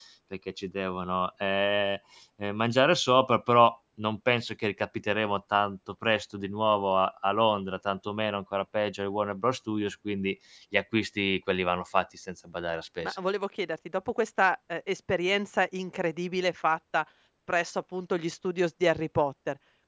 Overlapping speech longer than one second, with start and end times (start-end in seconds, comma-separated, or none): none